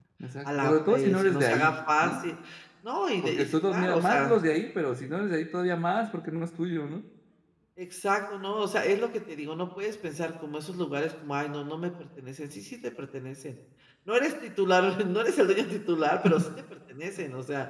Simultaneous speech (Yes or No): Yes